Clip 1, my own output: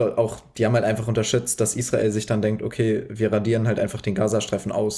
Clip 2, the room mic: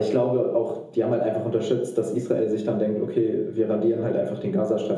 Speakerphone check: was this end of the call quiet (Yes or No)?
Yes